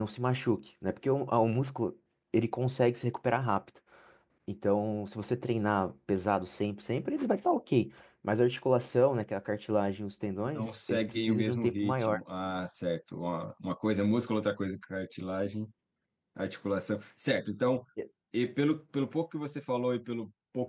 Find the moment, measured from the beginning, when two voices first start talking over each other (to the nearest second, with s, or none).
11 s